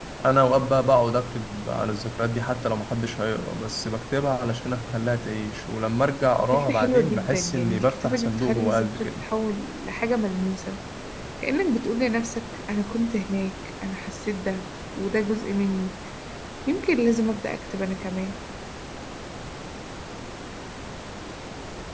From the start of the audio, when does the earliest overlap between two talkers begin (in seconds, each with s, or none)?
6.5 s